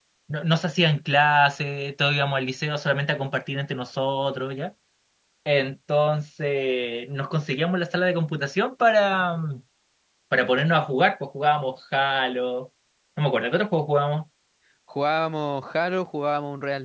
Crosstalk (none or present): none